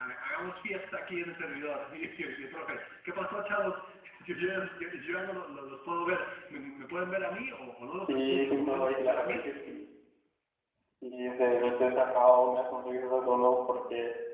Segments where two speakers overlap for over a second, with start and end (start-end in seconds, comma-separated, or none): 8.1-9.5